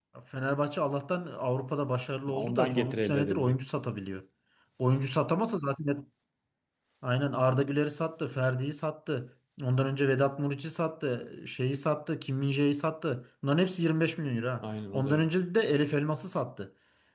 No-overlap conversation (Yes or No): No